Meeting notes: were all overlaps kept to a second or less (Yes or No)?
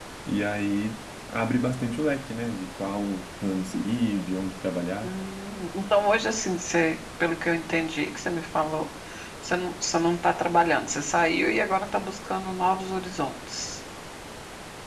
Yes